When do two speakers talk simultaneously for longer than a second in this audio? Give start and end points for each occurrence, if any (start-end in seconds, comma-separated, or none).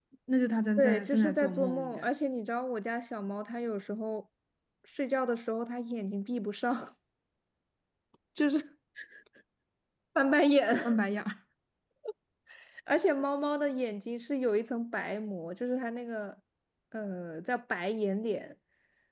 0.8-2.1